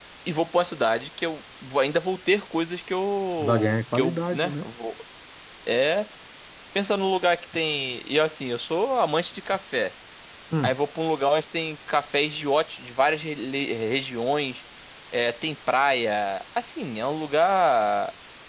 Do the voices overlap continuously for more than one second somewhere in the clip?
Yes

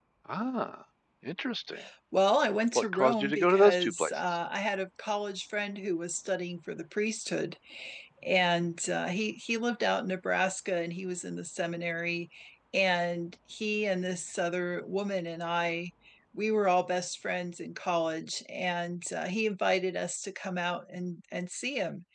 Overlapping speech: Yes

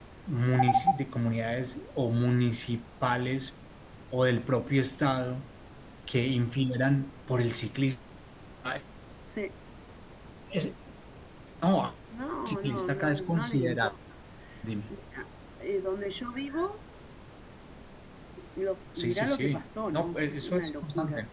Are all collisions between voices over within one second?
No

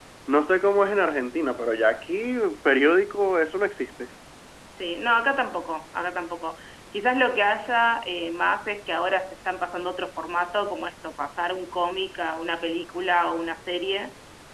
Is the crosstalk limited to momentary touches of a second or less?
Yes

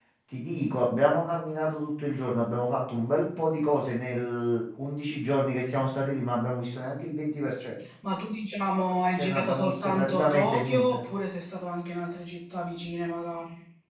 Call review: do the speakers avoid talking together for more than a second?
No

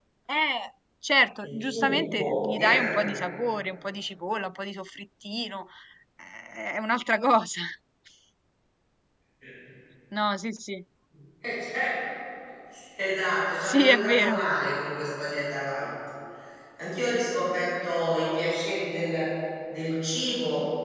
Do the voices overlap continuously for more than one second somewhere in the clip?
Yes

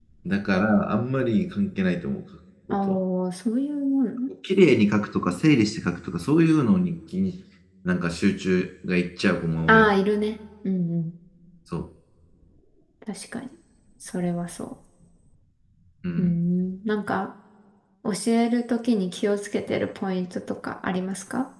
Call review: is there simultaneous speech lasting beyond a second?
No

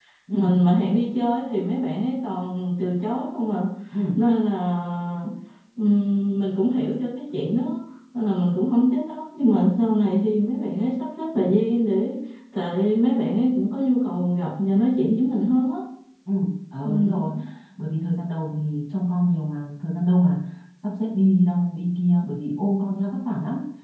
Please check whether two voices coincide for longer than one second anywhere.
No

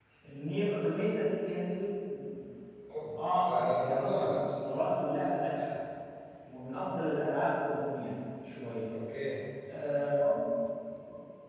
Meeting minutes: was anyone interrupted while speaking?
Yes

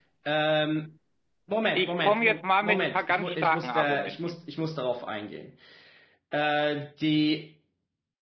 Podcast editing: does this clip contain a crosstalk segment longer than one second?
Yes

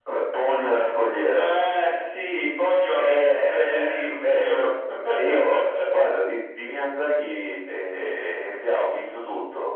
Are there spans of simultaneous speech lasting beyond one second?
Yes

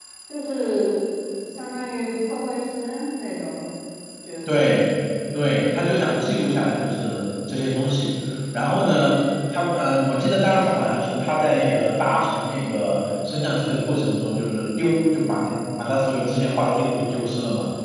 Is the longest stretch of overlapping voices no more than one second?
Yes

